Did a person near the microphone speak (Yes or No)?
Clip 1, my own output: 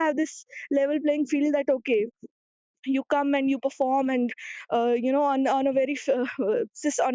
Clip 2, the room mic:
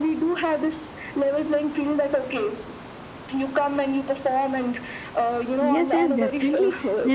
Yes